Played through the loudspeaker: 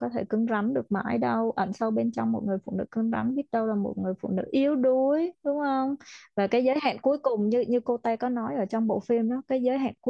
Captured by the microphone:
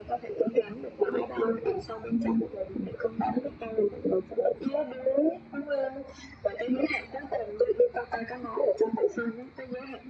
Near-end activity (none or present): none